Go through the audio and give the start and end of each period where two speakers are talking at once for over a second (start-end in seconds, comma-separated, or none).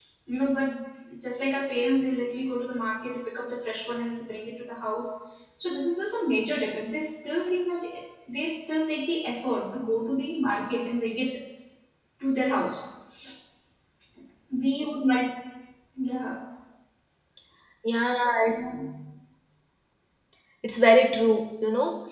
none